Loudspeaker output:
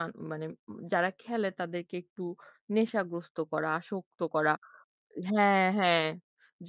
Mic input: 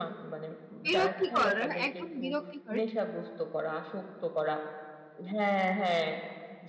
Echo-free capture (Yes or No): No